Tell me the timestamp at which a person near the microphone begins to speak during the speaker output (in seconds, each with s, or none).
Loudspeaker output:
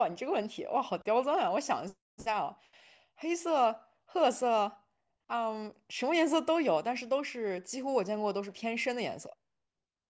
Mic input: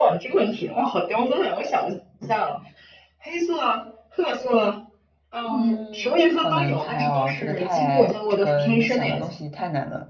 5.5 s